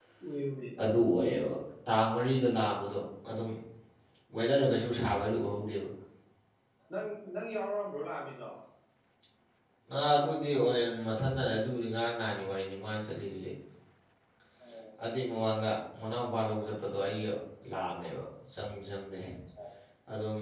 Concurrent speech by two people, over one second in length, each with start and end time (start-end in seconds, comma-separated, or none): none